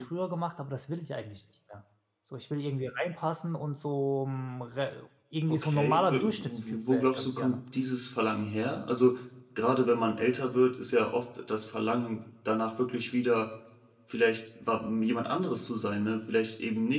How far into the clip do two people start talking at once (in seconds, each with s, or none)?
5.5 s